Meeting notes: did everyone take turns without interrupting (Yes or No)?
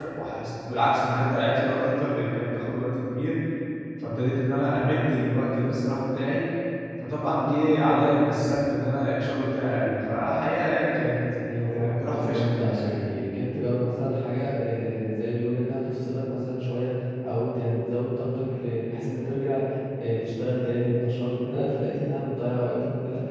No